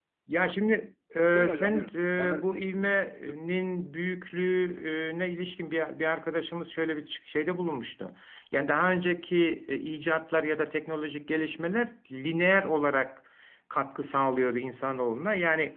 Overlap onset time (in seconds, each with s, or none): 1.4 s